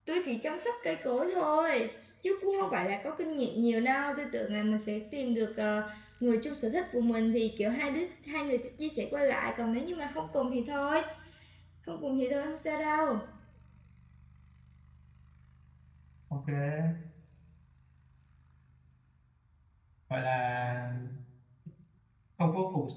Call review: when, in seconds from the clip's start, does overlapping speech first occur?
none

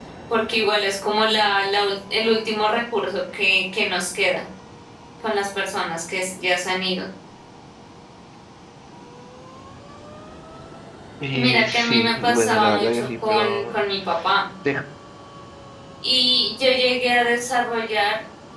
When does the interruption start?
11.3 s

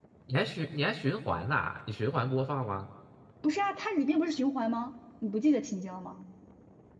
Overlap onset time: none

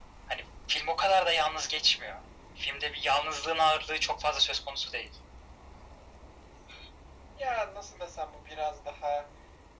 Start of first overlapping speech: none

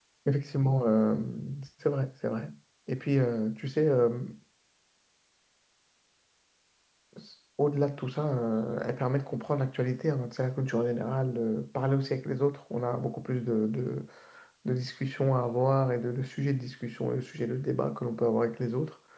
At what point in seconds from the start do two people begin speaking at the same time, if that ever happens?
none

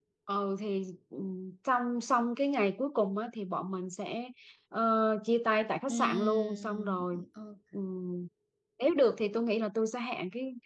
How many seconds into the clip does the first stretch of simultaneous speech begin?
5.9 s

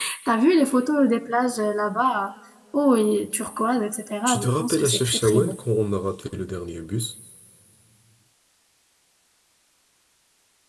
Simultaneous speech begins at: 4.2 s

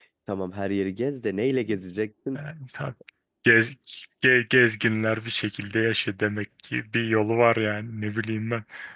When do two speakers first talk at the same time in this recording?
none

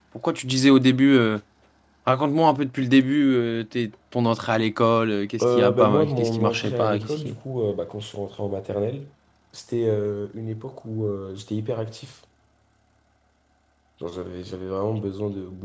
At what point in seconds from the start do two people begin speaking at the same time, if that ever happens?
5.4 s

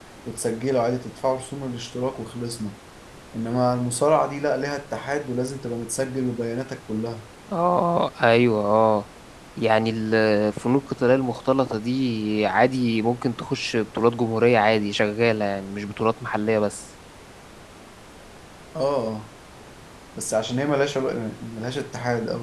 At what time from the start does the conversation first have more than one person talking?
none

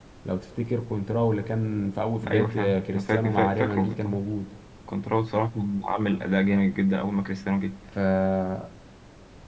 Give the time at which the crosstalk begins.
2.2 s

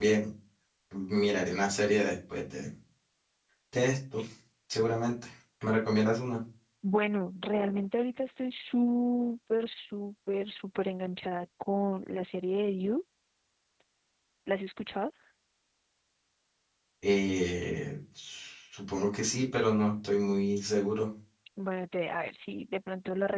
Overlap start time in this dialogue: none

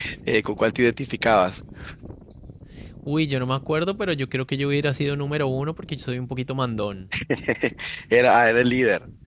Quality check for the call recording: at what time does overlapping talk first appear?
none

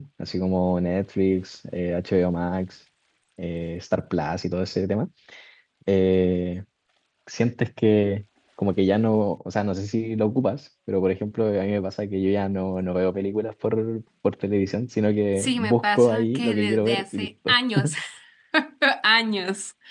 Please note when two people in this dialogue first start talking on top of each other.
15.4 s

